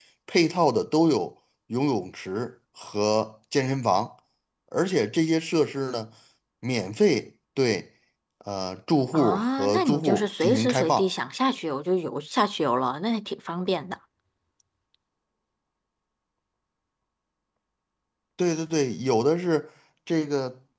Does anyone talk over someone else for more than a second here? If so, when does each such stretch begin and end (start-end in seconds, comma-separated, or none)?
9.1-11.1